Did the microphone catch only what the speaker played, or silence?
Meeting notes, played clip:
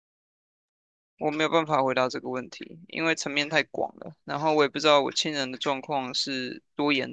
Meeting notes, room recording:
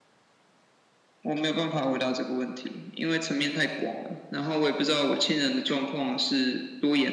Yes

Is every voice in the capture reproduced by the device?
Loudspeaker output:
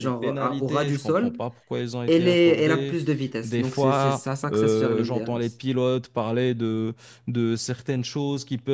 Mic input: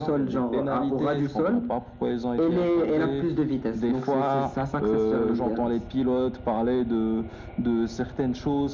Yes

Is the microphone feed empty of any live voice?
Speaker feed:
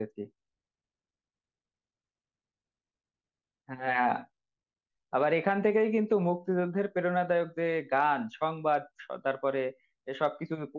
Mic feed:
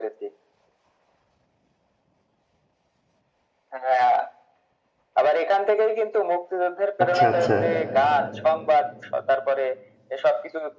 No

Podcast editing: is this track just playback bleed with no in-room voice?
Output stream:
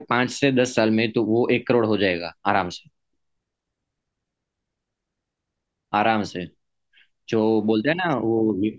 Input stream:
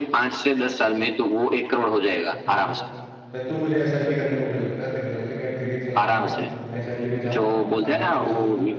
No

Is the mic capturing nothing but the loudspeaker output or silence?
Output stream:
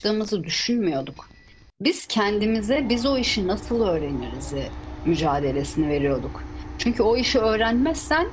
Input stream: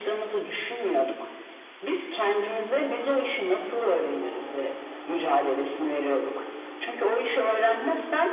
Yes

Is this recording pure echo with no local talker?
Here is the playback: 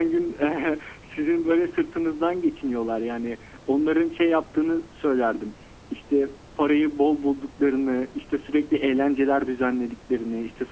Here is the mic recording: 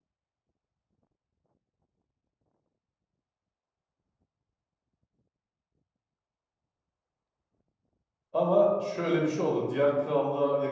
No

